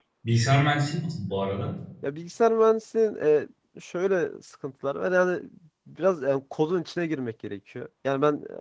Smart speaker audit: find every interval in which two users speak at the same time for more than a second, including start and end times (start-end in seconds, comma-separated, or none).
none